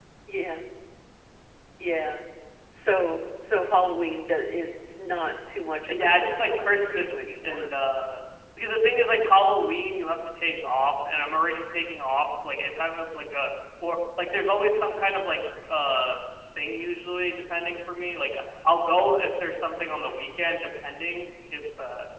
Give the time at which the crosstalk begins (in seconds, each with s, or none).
5.9 s